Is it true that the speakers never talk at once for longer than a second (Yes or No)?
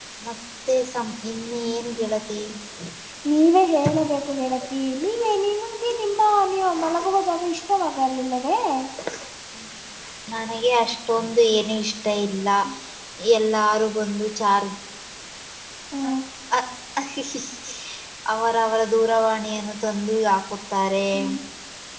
Yes